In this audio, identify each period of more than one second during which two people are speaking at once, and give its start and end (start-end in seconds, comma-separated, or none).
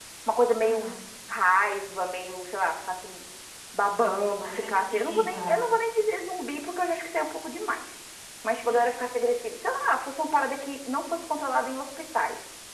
4.4-5.7